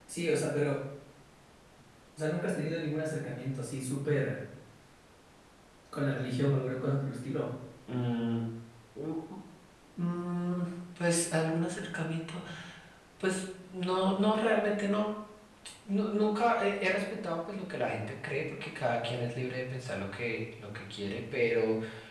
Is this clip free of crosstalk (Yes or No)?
Yes